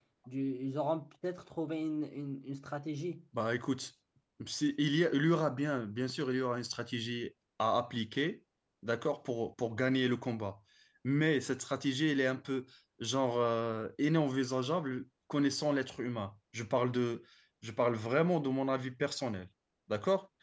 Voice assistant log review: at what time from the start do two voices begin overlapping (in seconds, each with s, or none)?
none